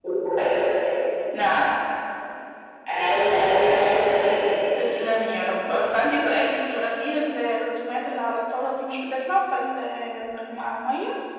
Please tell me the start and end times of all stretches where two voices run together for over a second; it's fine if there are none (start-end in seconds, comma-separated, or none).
none